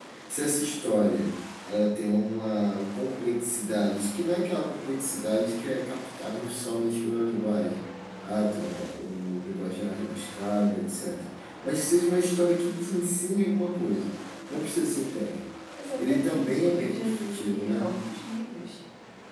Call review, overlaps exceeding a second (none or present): present